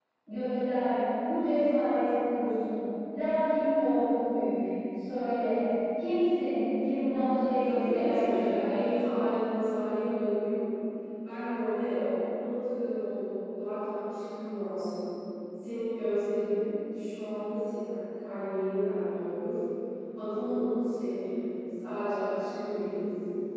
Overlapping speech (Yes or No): Yes